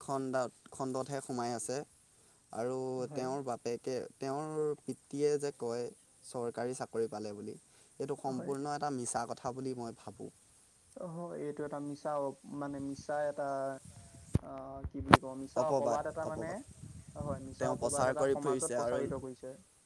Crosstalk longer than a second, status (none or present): present